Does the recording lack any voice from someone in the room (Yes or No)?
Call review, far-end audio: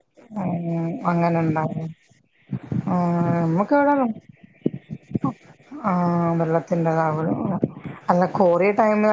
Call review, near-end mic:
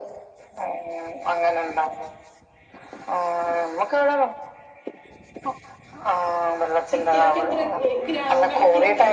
No